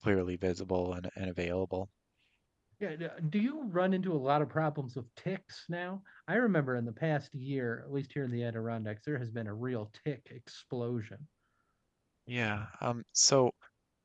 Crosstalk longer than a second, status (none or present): none